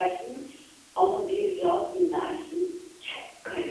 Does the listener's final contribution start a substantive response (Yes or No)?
Yes